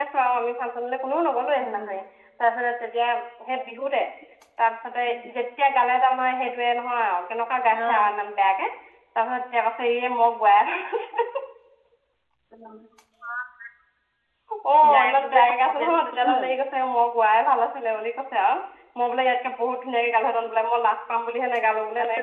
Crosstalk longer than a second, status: present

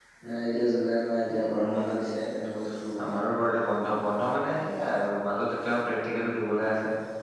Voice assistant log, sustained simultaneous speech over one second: none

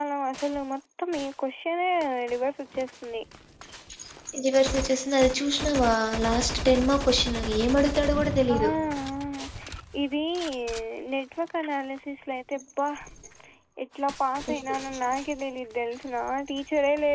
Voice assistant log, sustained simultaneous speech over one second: none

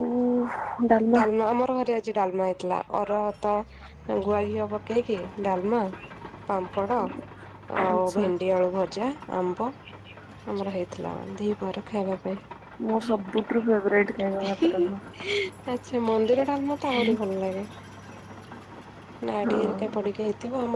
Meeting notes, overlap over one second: none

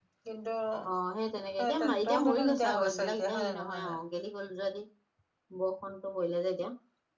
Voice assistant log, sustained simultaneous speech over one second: present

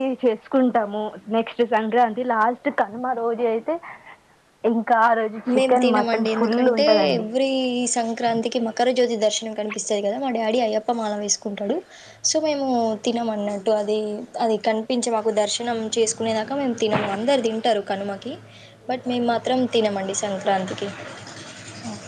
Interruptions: present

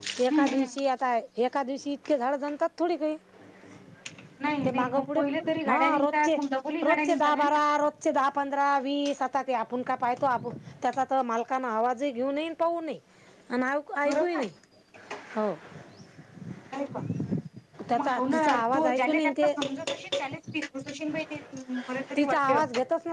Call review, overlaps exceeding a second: present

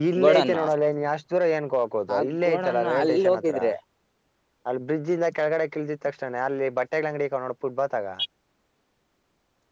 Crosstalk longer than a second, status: present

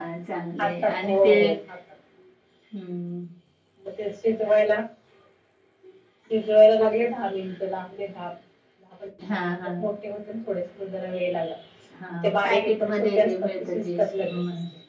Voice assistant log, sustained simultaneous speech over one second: present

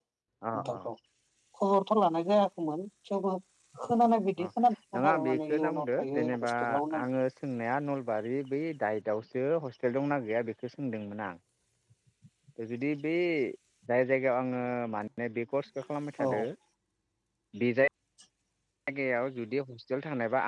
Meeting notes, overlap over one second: present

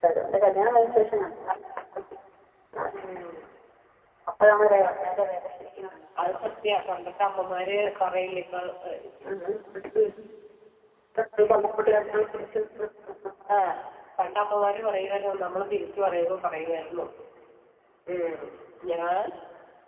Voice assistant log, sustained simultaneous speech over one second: none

